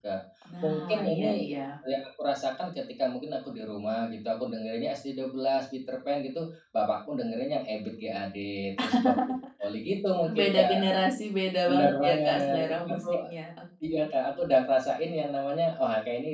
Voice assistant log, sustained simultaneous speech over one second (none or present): present